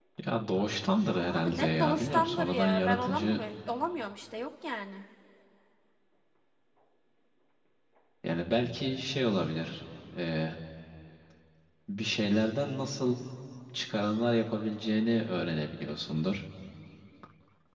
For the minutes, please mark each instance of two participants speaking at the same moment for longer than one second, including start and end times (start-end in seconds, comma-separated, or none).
1.3-3.4